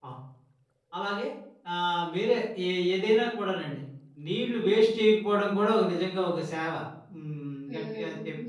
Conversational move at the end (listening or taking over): taking over